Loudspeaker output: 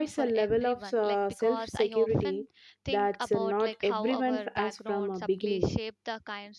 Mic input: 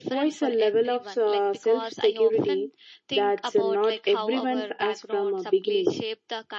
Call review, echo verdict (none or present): present